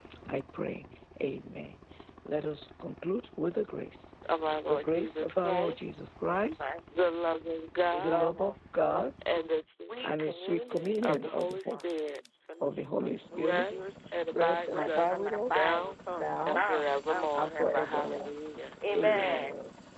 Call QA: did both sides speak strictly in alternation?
No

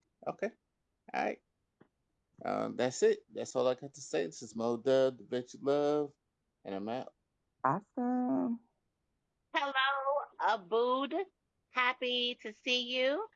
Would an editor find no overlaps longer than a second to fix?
Yes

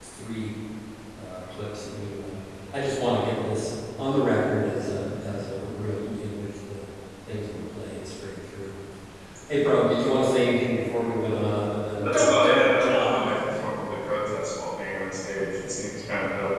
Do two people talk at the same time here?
Yes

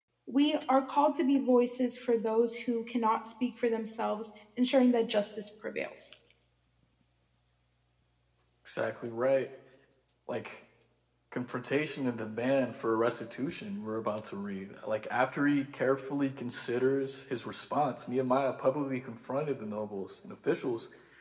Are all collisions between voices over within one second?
Yes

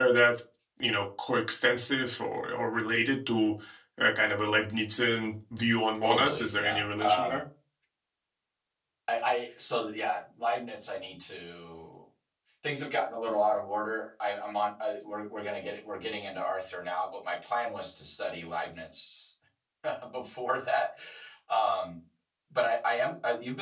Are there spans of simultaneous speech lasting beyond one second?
Yes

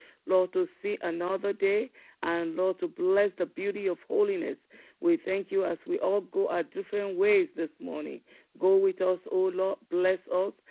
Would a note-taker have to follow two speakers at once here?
No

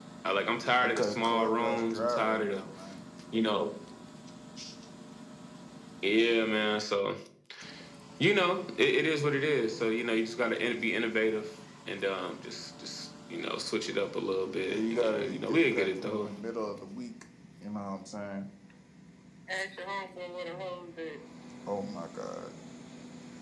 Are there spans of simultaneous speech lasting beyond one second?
Yes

